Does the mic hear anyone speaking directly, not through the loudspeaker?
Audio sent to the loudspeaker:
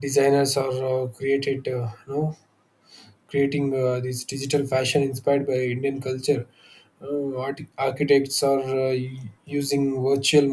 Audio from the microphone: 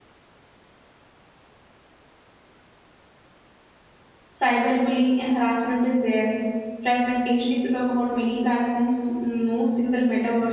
Yes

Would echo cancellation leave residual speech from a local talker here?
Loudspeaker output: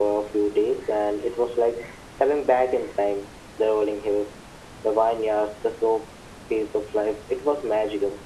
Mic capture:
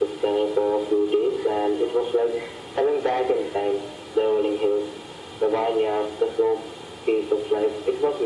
No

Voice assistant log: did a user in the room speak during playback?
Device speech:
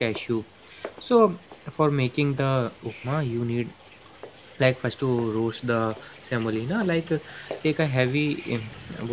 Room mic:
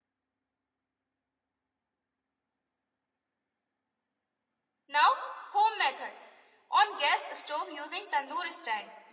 Yes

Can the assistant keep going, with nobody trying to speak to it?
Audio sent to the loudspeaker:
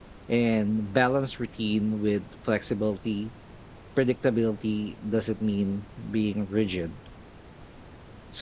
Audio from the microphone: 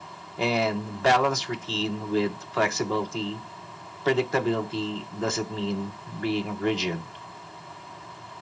Yes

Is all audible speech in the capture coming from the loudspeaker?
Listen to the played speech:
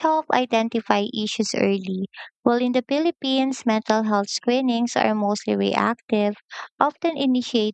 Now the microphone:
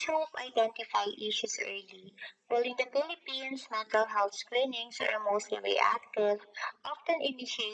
Yes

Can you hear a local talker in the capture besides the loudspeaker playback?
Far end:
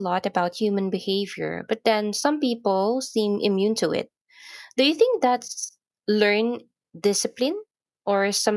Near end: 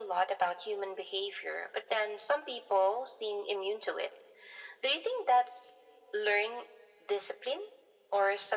No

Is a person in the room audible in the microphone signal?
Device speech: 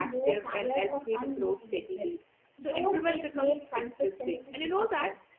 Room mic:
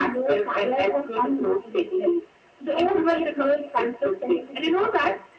No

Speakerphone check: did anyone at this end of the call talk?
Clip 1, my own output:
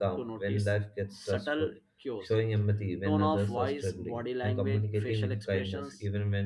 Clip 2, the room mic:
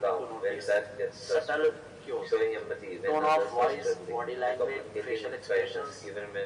No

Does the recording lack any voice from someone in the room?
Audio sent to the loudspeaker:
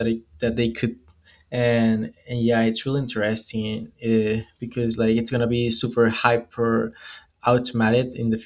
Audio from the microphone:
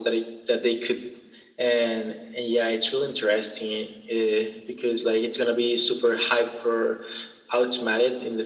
Yes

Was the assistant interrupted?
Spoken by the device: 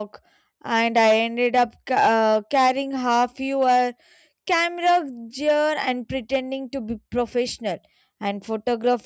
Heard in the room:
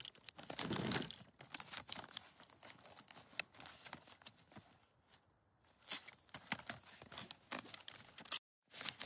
No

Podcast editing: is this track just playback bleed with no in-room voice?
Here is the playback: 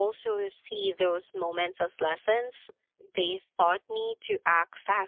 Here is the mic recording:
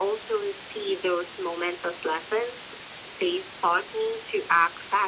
Yes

